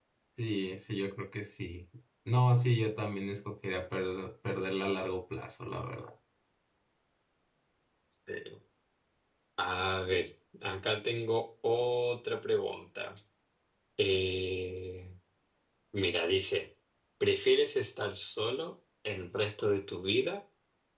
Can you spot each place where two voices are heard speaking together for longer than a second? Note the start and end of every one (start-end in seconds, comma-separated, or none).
none